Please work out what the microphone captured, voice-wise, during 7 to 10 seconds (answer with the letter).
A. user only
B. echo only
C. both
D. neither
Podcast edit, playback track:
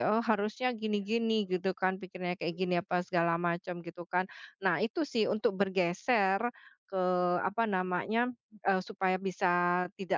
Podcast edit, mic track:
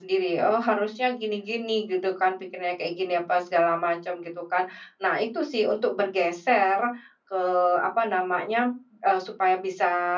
B